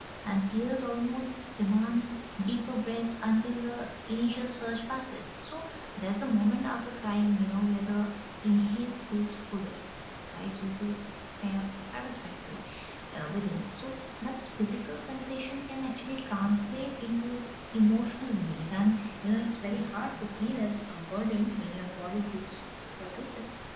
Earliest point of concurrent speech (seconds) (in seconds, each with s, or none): none